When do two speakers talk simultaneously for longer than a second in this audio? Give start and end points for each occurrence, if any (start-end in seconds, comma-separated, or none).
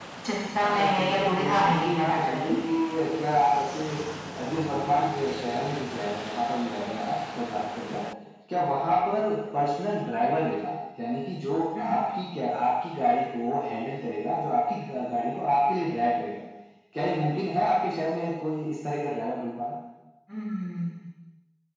0.6-2.6